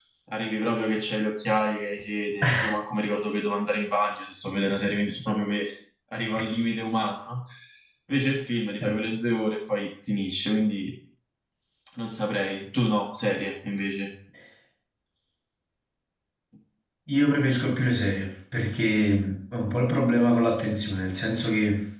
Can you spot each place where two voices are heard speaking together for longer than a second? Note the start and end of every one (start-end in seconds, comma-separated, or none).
none